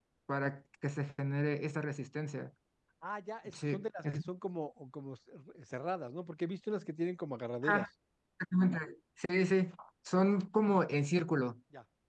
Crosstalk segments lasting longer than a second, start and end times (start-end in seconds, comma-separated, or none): none